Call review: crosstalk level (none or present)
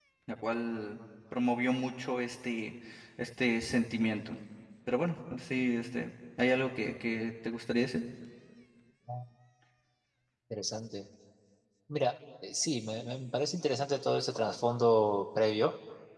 none